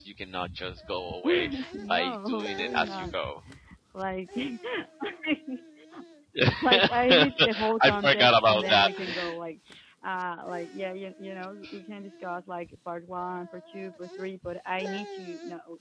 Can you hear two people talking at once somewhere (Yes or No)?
Yes